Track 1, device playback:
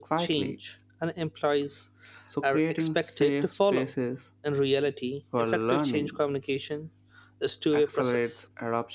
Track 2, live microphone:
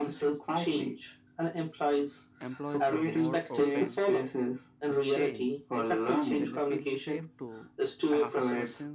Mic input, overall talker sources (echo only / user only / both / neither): both